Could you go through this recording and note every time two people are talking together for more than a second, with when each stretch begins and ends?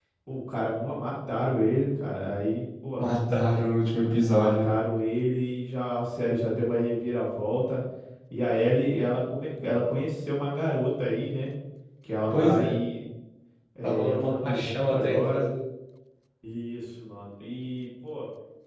13.8-15.5

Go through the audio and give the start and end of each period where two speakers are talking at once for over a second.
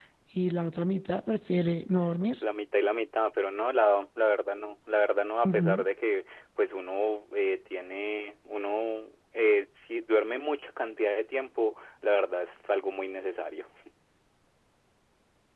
none

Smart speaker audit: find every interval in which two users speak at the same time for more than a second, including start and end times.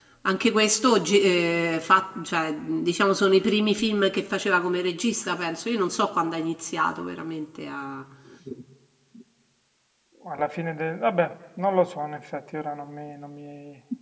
none

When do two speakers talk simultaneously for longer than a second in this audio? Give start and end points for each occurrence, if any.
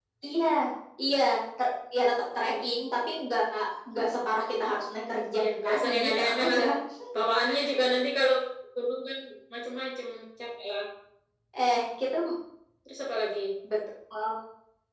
5.4-6.6

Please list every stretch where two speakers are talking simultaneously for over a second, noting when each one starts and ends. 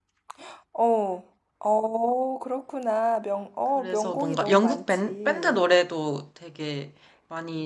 3.8-5.7

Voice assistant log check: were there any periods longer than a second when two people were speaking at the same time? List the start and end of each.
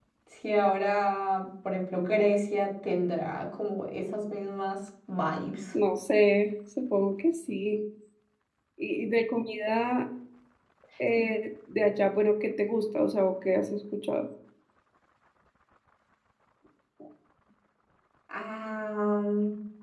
none

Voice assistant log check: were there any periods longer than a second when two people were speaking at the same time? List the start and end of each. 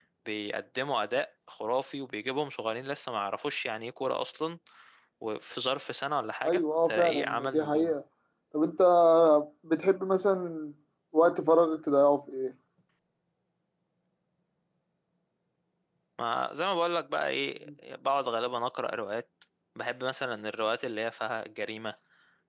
6.5-7.9

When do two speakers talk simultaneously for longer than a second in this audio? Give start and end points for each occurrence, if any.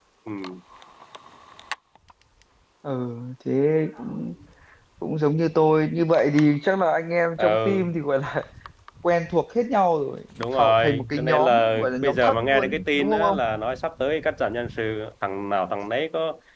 10.4-13.4

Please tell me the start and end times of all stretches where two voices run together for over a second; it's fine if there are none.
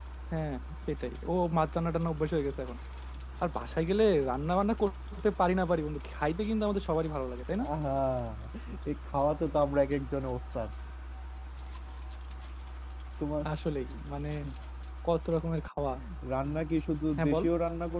none

